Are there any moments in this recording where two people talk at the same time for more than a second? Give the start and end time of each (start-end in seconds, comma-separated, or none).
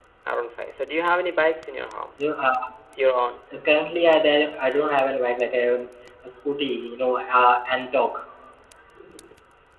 none